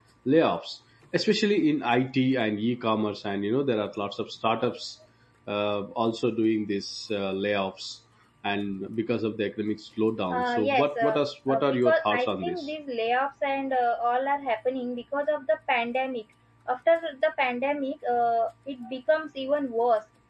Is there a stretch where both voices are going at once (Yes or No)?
Yes